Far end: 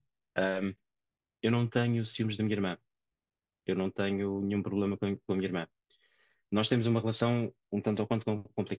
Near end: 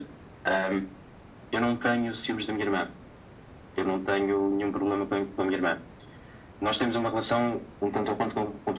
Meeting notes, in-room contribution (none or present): none